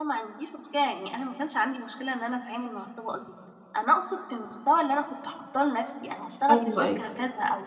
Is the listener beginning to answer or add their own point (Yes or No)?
No